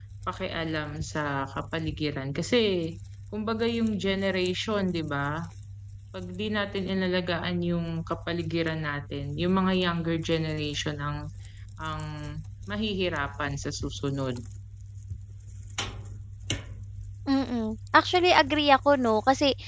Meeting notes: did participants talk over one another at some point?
No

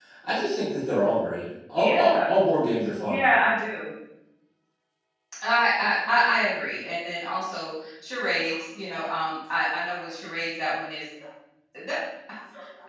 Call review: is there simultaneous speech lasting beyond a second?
No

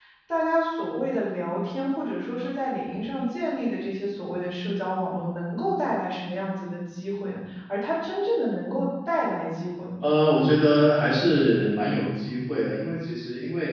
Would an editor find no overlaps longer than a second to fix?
Yes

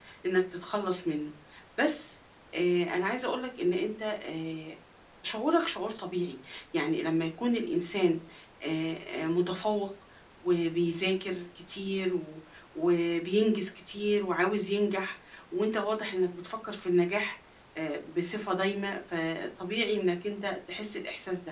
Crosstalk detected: No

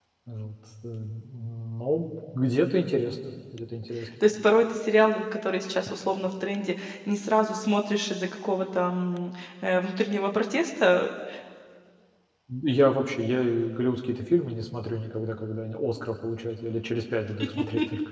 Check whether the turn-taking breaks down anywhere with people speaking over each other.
No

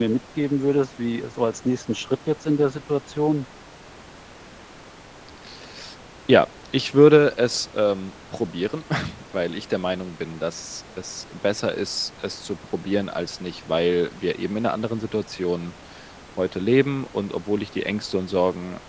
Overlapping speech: No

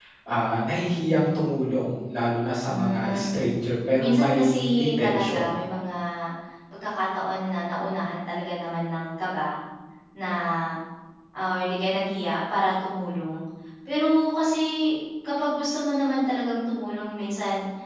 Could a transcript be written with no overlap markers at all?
No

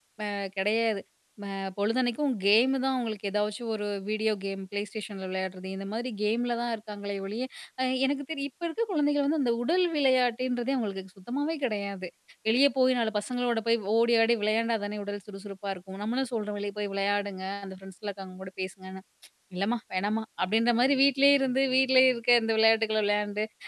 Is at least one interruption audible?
No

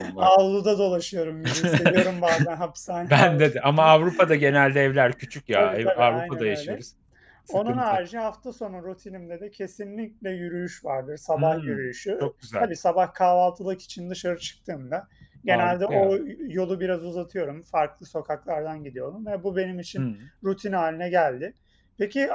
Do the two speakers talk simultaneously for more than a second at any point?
Yes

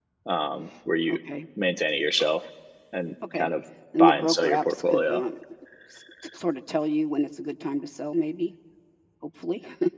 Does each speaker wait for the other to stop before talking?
No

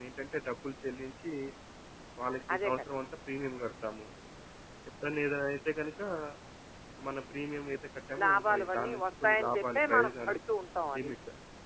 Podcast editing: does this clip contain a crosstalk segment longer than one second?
Yes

